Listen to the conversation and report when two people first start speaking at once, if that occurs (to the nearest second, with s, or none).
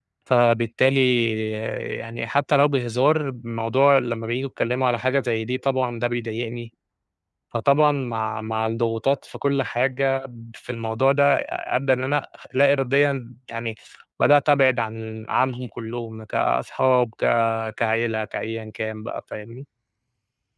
none